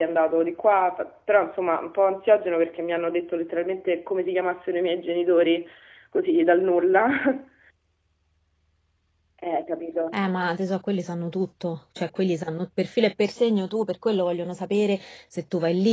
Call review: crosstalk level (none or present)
none